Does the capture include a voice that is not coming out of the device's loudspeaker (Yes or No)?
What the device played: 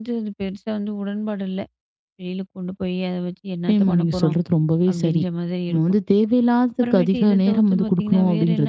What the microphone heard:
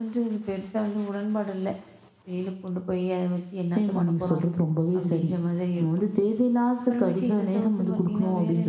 No